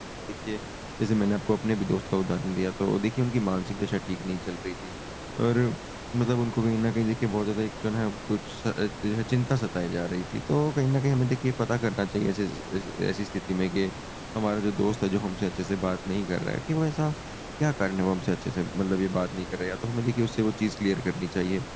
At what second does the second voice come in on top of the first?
none

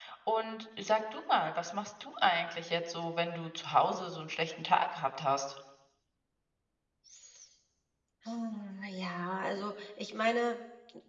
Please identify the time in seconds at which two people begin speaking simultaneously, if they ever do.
none

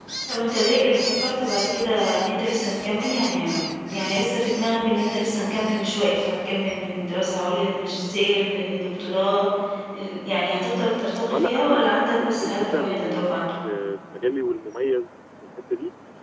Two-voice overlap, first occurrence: 11.3 s

